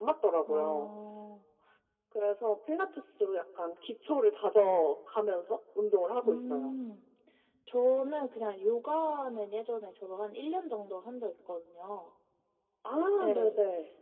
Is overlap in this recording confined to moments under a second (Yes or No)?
Yes